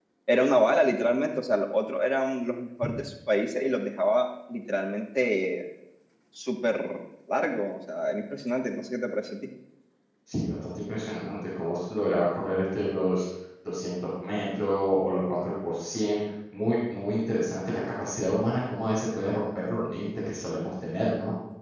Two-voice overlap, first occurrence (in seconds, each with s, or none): none